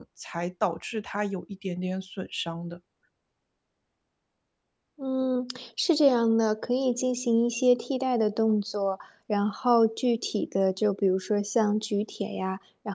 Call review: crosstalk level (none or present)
none